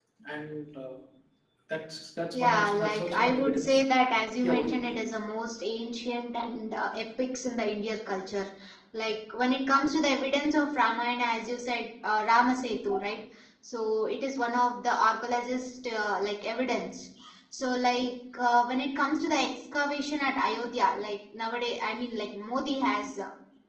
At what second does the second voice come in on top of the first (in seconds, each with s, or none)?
2.3 s